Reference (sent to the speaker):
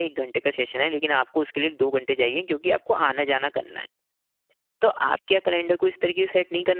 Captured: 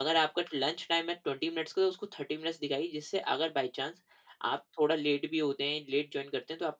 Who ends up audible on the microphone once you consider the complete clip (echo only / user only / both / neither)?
user only